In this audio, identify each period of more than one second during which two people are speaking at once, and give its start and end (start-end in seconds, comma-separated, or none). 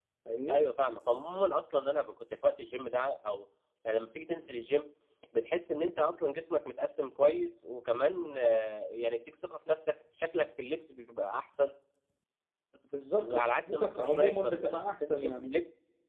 13.2-15.6